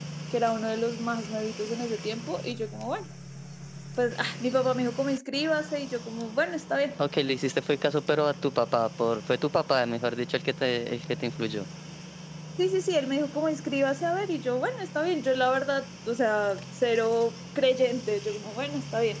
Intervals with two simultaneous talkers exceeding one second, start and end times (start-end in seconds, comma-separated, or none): none